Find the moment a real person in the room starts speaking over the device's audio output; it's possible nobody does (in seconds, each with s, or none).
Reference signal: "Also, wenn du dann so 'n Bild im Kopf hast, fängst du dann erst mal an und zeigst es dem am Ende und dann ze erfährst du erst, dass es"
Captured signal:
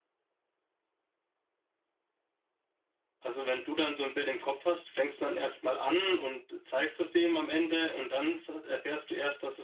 none